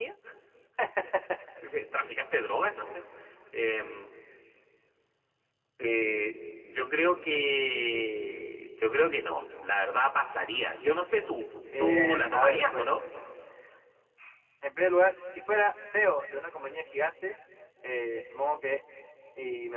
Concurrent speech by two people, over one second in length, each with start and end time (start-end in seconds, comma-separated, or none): 11.8-13.0